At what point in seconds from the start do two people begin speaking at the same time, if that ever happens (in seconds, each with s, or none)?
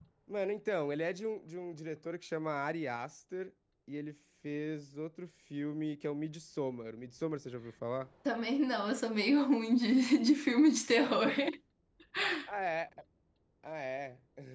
none